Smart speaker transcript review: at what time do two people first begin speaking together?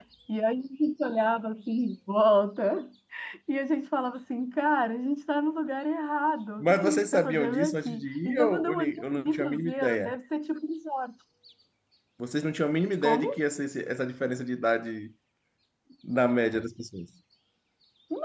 6.6 s

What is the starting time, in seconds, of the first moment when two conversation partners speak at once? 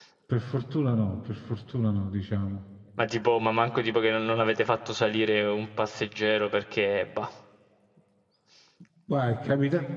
none

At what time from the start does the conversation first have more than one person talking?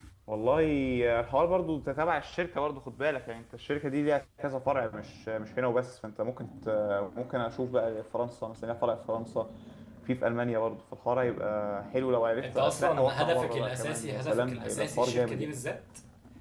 12.4 s

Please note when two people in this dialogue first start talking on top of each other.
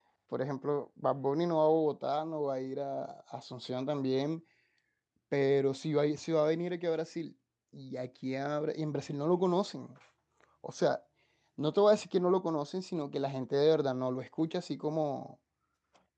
none

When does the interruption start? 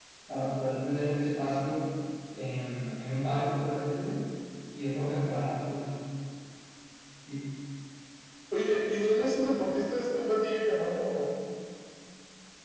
none

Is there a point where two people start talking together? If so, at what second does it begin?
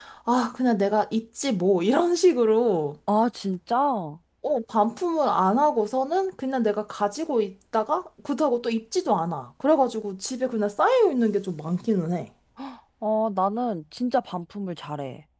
none

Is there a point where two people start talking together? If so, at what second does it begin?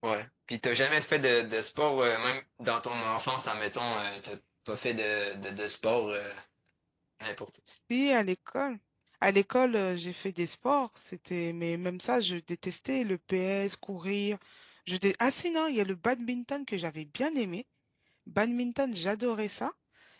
none

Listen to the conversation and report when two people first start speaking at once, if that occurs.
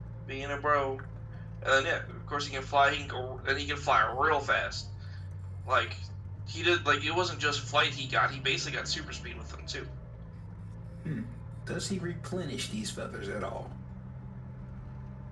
none

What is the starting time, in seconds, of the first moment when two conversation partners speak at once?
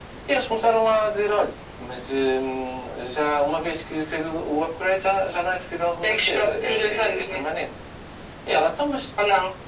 6.0 s

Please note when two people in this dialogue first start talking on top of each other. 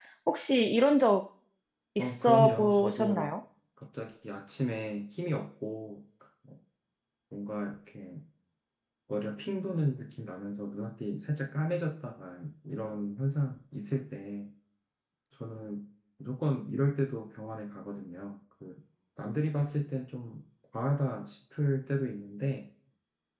2.0 s

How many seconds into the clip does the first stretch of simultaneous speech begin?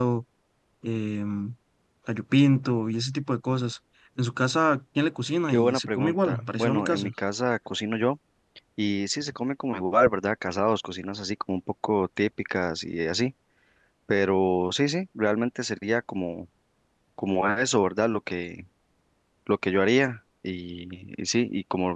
5.5 s

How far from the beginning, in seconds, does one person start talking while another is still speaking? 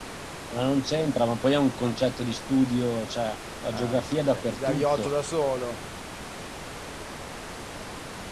3.7 s

